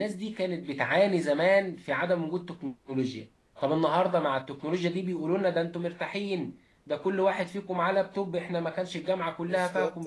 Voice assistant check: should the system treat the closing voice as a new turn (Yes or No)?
No